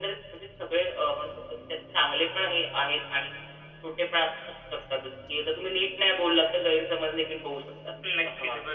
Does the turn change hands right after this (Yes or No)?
Yes